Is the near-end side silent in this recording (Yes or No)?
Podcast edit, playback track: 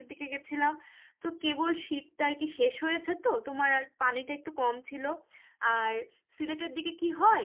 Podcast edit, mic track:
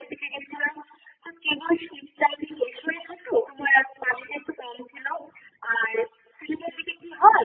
Yes